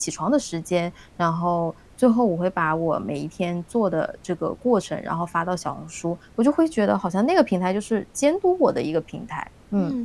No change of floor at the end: No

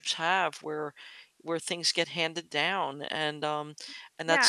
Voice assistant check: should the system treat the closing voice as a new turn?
Yes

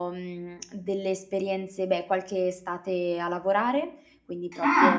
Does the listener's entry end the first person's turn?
Yes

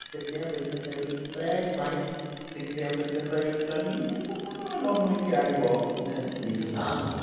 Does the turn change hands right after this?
Yes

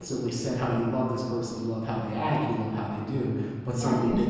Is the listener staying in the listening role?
No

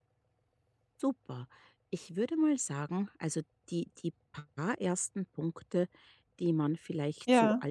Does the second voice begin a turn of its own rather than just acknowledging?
No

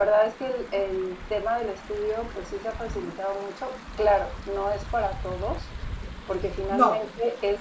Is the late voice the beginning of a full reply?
No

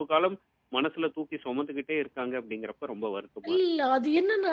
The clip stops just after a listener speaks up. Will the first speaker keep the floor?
No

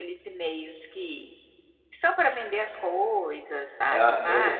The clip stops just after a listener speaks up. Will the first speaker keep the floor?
No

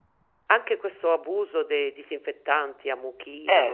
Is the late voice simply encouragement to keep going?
Yes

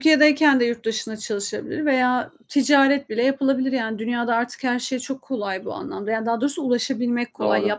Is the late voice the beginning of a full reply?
No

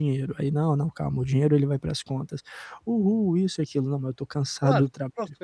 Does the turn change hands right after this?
Yes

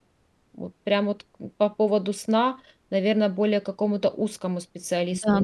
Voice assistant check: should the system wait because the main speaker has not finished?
No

